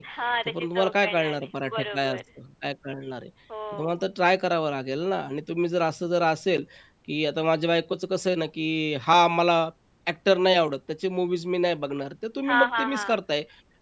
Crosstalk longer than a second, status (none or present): present